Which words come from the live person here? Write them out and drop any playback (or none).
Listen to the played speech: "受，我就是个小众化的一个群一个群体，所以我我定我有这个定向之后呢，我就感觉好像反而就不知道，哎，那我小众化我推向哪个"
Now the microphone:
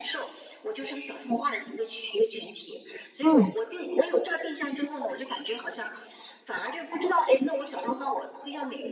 嗯，